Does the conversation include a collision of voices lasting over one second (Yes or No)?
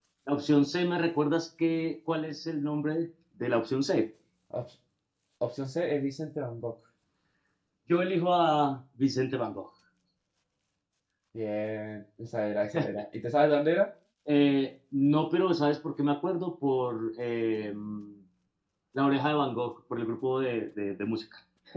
No